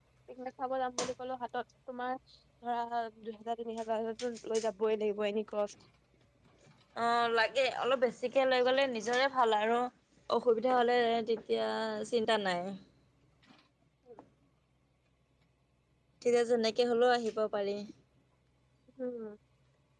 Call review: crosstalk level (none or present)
none